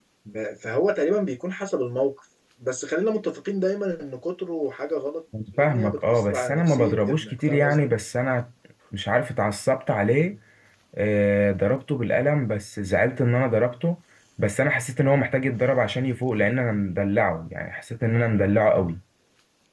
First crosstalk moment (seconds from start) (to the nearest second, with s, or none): 5 s